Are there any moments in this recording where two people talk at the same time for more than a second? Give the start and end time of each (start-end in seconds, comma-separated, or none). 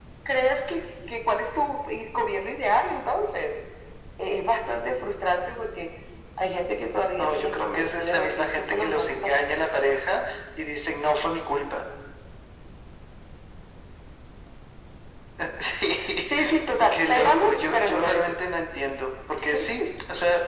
7.2-9.4, 16.9-18.4